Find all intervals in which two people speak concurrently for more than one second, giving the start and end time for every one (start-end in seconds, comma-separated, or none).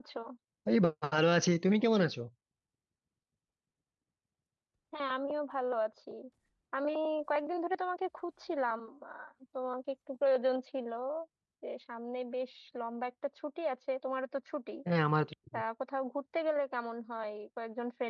none